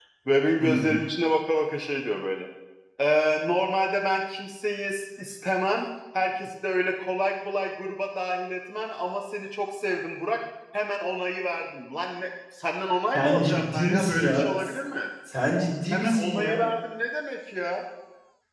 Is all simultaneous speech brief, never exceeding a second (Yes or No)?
No